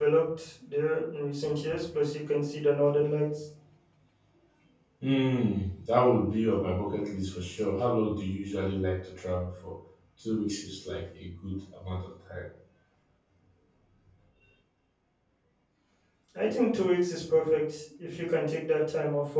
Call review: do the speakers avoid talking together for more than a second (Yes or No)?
Yes